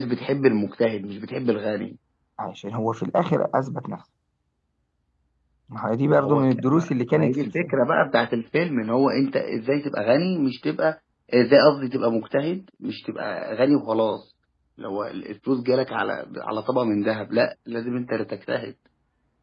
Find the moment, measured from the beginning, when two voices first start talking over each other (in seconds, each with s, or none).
6.1 s